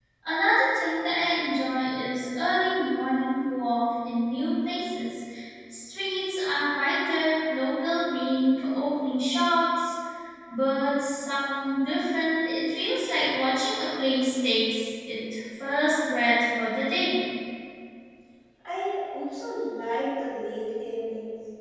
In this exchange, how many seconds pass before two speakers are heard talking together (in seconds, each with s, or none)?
none